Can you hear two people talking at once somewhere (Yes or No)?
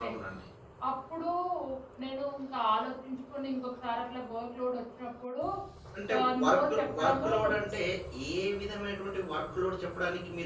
Yes